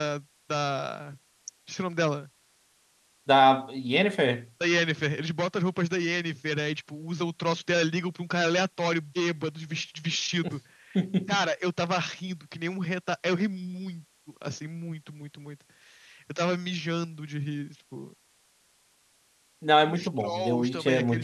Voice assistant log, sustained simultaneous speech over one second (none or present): present